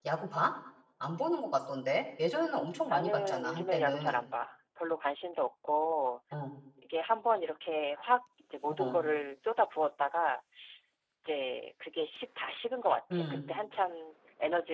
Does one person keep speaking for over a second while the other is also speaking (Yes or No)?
Yes